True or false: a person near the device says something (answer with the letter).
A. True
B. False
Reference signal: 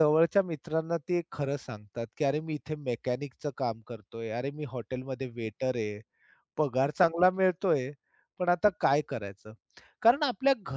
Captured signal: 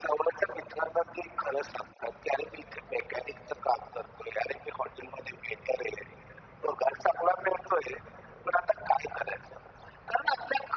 B